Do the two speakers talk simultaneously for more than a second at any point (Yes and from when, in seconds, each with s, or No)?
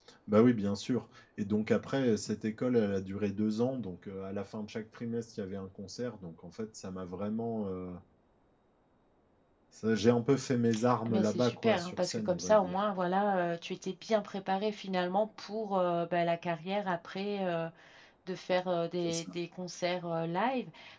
Yes, from 11.1 s